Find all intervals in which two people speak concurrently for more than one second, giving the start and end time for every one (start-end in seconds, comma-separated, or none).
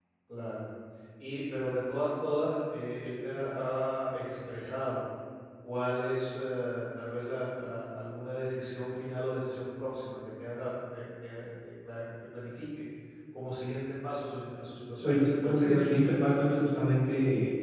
15.0-16.6